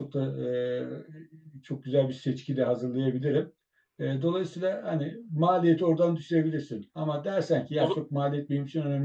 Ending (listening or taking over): listening